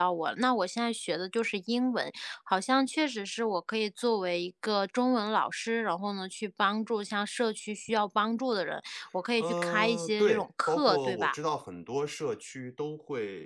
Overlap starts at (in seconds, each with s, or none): 9.4 s